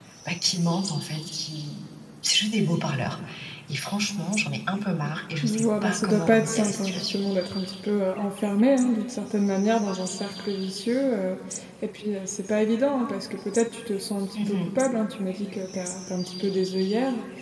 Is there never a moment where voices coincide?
No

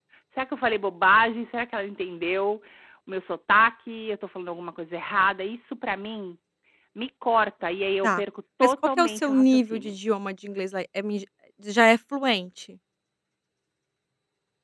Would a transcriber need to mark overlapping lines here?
Yes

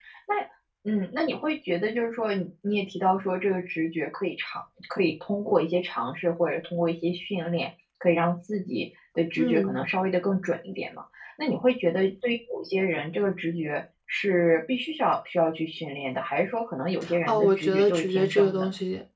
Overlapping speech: Yes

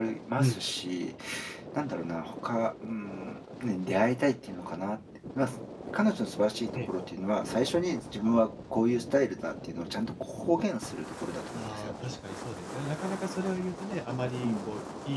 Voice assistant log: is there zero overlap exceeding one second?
Yes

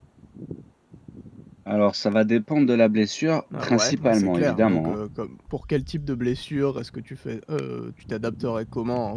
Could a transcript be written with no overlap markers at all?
No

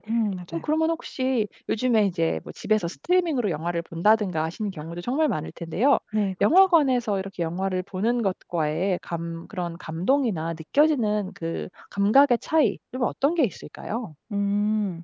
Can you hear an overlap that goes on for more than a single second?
No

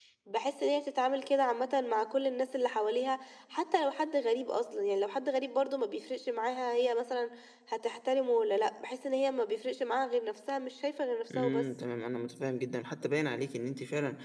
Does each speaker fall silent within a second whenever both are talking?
Yes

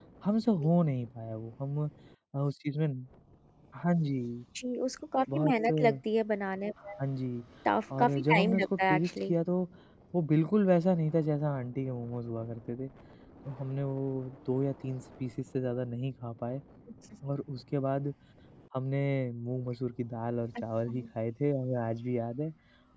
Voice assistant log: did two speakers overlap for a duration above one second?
Yes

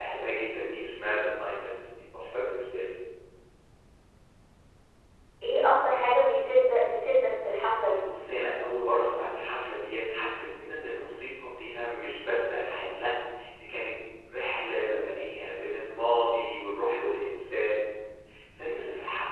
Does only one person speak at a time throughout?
Yes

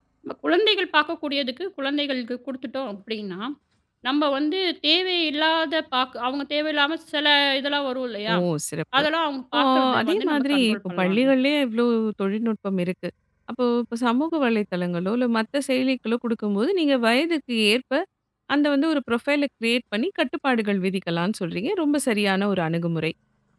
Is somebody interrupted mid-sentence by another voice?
Yes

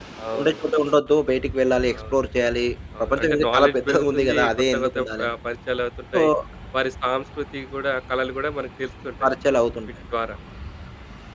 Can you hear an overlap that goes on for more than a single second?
Yes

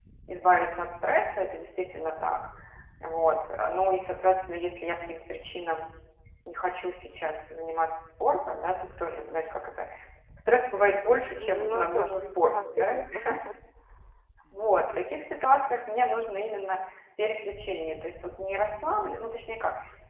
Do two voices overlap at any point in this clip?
Yes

